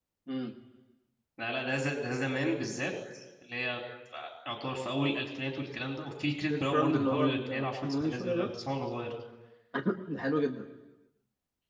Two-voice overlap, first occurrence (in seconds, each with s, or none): 6.5 s